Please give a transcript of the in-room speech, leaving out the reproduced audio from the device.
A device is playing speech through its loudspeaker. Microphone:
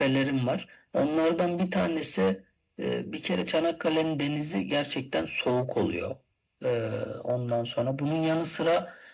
none

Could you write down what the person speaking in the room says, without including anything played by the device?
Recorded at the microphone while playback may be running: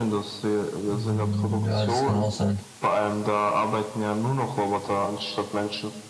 Mhm, Ja, das kann auch sein.

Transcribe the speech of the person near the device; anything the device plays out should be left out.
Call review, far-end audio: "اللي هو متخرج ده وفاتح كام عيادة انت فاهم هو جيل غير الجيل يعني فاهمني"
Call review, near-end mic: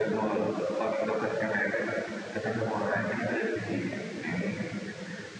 none

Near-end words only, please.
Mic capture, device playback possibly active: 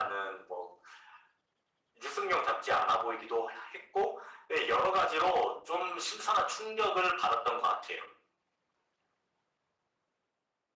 none

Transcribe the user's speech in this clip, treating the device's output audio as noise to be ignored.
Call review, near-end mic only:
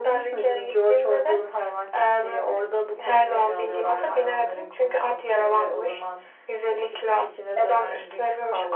none

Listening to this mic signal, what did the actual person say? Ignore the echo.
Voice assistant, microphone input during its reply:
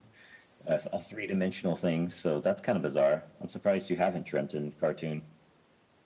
none

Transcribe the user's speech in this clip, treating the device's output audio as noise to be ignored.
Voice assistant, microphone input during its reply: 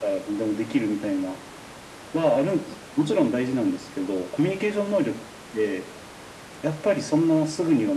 none

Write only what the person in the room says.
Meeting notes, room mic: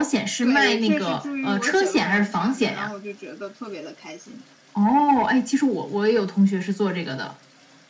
对，也确实助于我写论文啥的，然后我就觉得特别的开心。

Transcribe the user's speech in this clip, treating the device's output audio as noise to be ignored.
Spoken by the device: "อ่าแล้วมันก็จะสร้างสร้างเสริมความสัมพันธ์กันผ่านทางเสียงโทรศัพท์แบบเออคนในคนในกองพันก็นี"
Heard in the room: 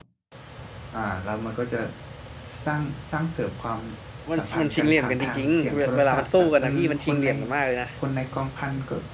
มันมันชิงเหลี่ยมกันจริงๆเวเวลามันสู้กันนะพี่มันชิงเหลี่ยมกันมากเลยนะ

